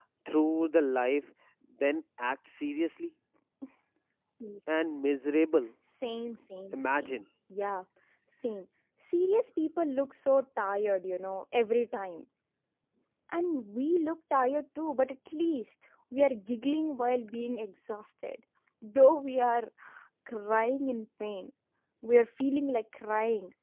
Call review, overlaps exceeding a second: none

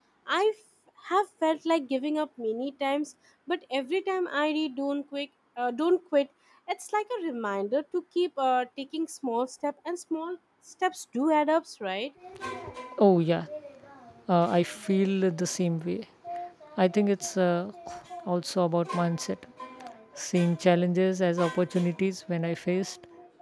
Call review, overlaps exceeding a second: none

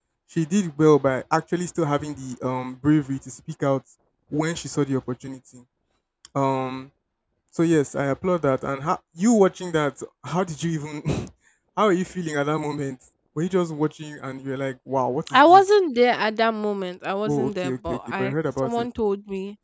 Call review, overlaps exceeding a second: present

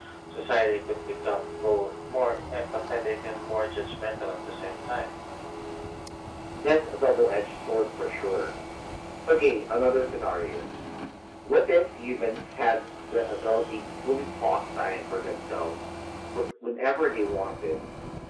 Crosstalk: none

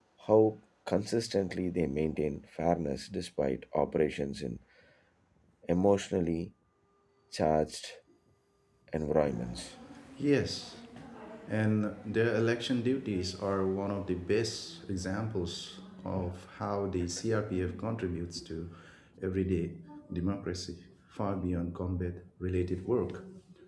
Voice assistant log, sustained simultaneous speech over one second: none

